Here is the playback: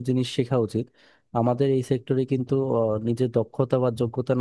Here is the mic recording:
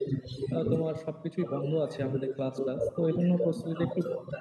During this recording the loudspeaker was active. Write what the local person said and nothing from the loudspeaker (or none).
আহ, তোমার সবকিছুই বন্ধ আছে আমাদের ক্লাস ক্লাস তো এই জন্য প্রস্তুতিতে একটু